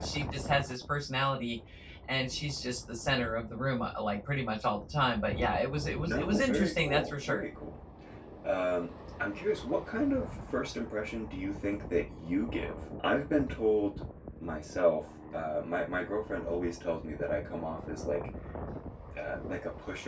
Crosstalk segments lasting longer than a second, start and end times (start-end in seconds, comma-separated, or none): 6.0-7.4